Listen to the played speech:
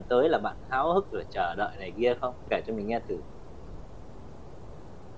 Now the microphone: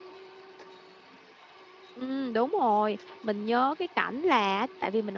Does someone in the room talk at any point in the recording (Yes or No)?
Yes